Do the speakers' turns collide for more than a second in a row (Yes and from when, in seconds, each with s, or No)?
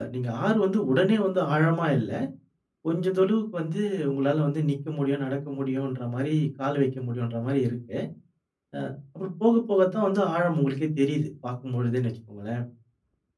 No